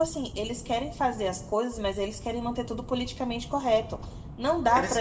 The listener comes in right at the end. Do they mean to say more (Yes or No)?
Yes